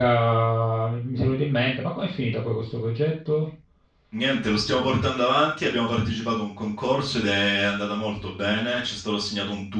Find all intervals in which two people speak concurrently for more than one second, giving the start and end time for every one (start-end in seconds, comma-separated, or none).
none